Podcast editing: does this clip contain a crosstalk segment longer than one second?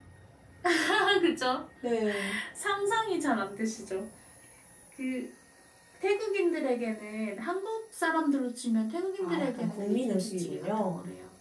Yes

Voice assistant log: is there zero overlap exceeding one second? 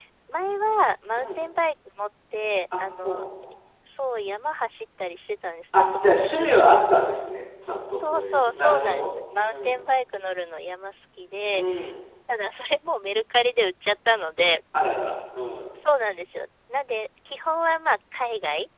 No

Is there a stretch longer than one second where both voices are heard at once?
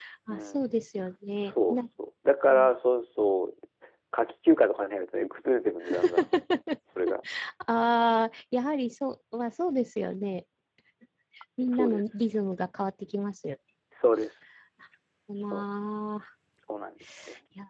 No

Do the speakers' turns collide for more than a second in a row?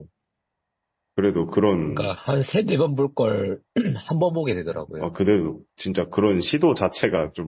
No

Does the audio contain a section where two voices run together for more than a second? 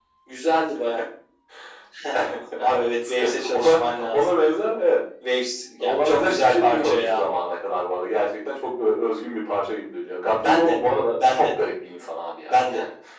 Yes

